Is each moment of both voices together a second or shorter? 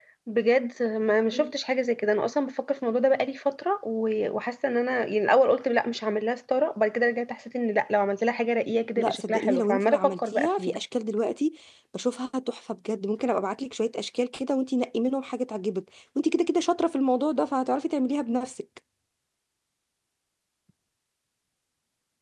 No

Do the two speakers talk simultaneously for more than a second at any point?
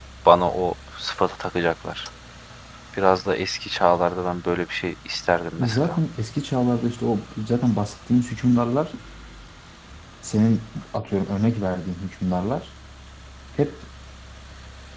No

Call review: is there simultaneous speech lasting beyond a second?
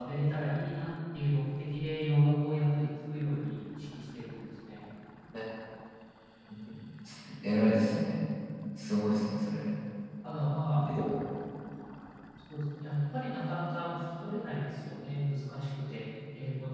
No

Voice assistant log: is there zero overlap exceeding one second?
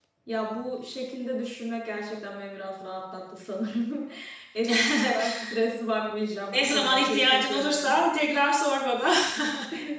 No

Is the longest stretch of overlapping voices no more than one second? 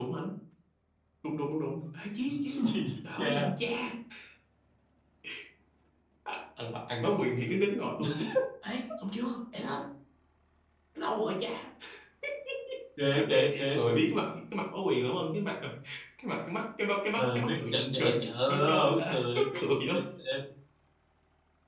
No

